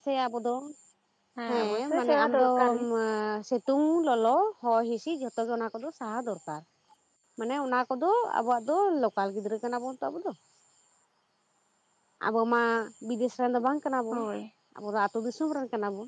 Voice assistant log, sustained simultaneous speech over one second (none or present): present